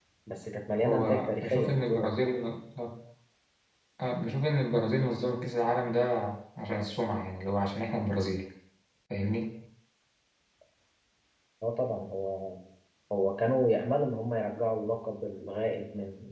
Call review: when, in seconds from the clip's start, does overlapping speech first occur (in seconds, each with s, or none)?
0.8 s